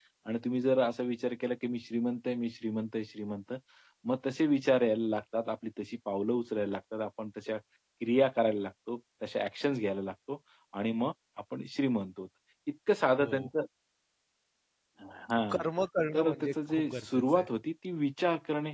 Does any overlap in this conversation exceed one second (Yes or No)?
Yes